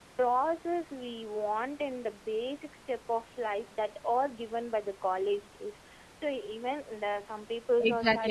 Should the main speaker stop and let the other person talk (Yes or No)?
Yes